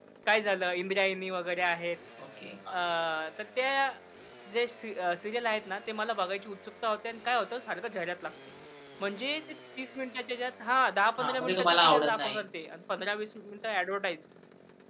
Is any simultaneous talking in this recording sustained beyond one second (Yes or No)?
Yes